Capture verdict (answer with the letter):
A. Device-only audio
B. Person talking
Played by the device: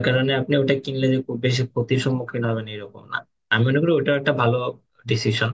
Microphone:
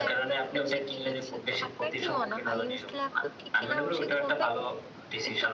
B